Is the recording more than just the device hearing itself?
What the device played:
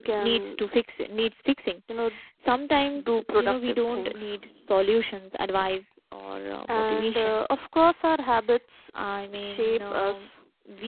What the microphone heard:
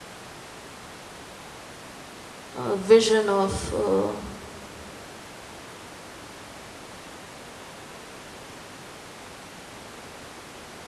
Yes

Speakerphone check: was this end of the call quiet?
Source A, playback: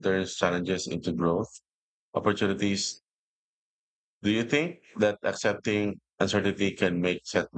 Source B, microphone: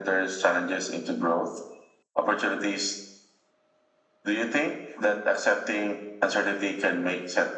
Yes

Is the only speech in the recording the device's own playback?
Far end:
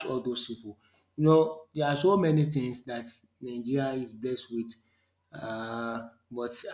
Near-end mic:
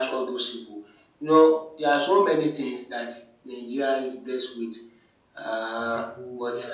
No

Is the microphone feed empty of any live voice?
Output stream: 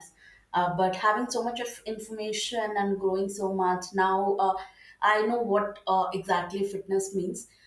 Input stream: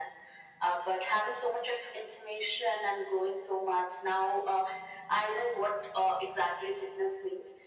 Yes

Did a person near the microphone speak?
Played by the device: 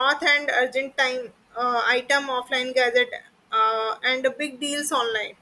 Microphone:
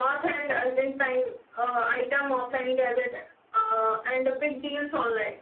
No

